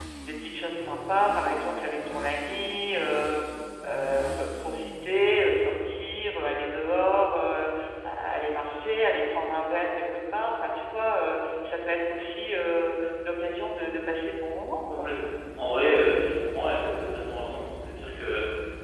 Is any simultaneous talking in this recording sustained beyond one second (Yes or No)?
No